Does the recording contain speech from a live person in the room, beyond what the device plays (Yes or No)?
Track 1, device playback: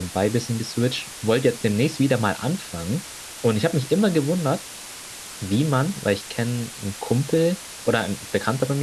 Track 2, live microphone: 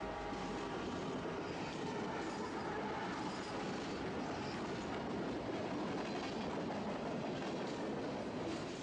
No